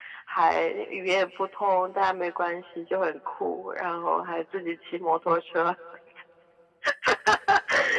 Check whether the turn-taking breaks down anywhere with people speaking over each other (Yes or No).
No